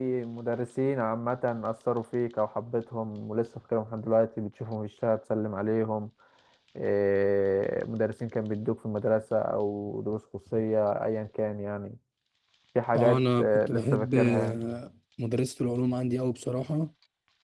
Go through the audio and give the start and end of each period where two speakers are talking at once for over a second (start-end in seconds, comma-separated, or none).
12.9-14.6